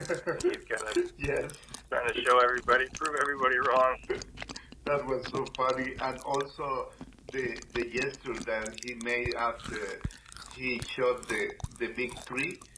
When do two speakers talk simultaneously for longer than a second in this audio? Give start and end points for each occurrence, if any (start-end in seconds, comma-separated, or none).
none